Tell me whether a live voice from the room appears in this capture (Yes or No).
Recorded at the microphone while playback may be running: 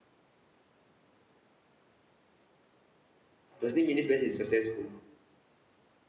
Yes